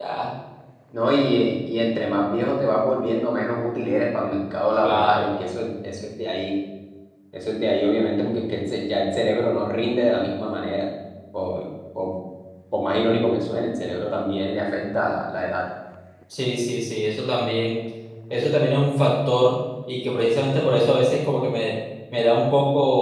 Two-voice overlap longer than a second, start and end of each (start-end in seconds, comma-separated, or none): none